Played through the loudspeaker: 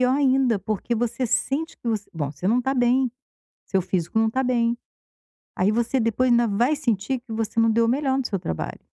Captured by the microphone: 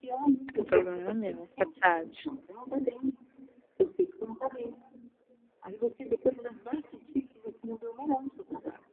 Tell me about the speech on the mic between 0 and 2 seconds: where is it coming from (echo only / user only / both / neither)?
both